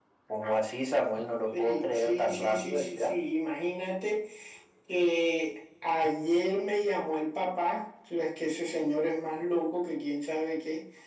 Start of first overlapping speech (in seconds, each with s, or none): 1.5 s